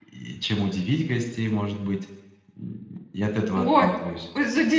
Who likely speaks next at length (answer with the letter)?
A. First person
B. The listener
B